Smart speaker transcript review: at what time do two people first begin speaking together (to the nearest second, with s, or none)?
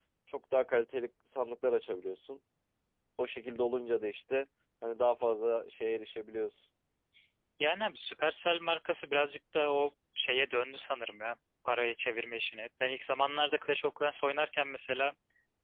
none